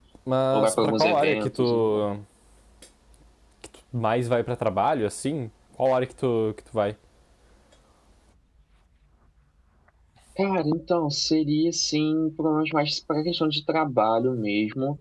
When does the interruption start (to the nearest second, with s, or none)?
1 s